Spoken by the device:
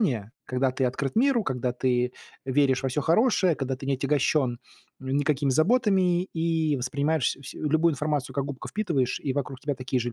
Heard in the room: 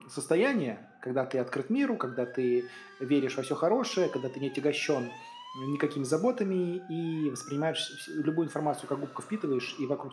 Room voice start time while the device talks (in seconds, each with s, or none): none